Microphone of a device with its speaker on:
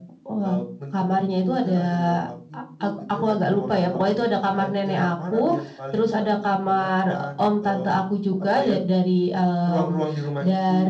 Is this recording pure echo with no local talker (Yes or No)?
Yes